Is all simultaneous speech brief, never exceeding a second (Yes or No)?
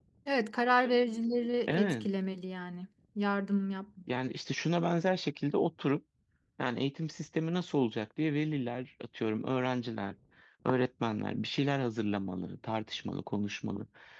Yes